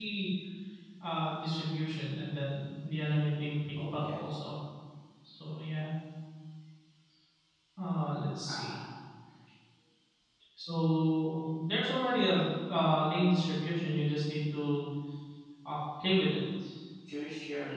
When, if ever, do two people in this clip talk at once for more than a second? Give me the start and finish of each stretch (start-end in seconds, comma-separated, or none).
none